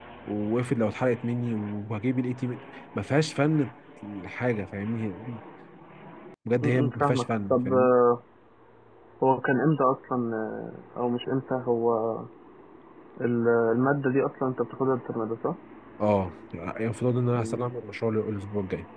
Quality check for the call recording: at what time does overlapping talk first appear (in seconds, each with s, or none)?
6.6 s